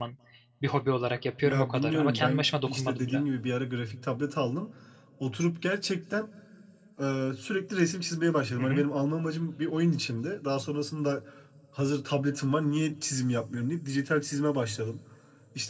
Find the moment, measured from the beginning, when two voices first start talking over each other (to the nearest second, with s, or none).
1 s